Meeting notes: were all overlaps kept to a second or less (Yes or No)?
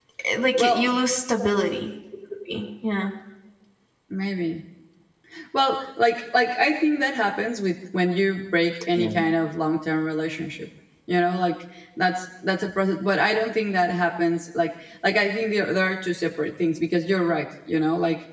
Yes